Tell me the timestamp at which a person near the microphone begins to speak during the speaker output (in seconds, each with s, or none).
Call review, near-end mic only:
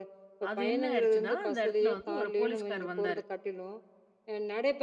0.5 s